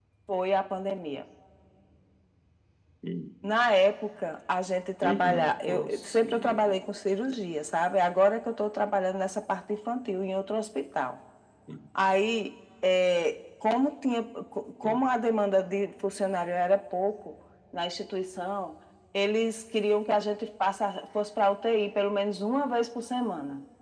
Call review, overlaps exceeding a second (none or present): present